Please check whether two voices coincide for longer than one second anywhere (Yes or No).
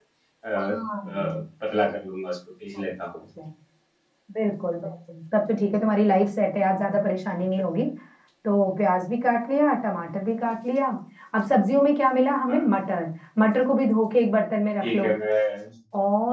No